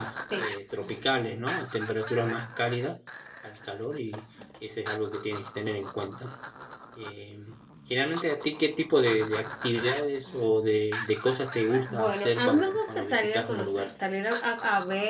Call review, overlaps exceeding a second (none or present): present